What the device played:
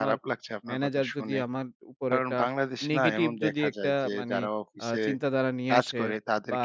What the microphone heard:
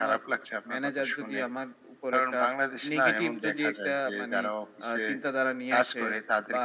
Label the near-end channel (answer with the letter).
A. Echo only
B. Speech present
A